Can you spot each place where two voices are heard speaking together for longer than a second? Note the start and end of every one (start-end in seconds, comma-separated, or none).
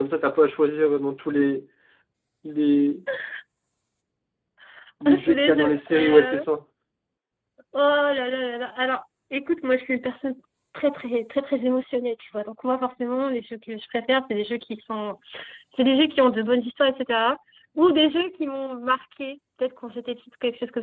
5.1-6.4